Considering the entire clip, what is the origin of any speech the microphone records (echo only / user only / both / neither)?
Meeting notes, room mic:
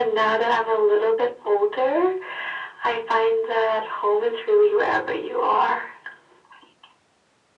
echo only